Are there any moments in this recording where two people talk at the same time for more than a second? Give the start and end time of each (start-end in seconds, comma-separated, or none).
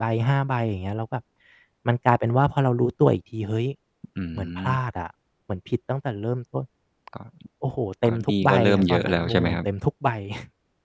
8.1-9.6